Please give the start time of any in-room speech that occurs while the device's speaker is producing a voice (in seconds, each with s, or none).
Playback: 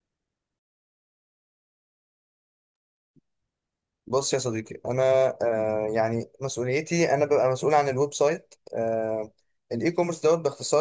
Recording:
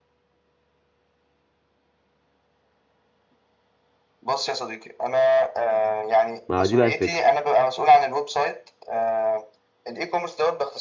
6.5 s